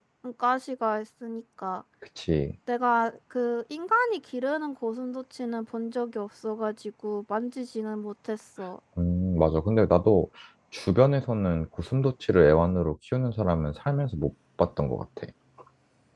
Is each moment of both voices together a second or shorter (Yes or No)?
Yes